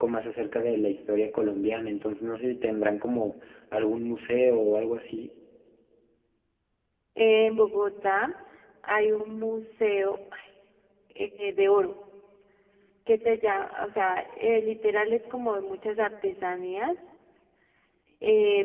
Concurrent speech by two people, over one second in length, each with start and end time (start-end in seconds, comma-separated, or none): none